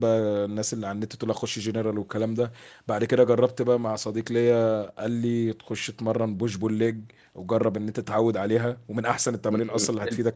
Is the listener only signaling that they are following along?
No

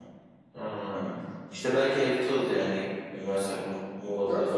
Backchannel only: No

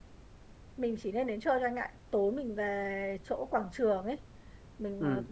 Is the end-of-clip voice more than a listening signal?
No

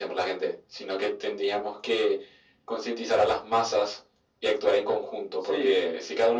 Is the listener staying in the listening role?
Yes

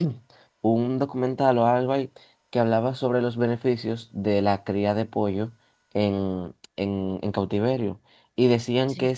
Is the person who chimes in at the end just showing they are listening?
Yes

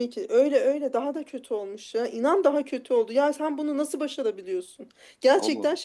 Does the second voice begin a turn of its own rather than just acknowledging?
No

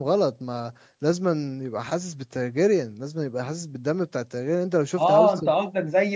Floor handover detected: Yes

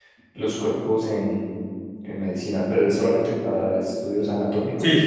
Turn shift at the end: Yes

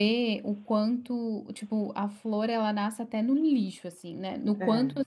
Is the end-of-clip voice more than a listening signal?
No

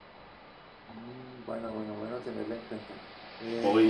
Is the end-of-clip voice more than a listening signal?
Yes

